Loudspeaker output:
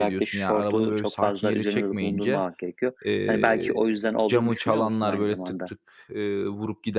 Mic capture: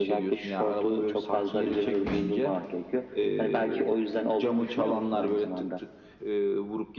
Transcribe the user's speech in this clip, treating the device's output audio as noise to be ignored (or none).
none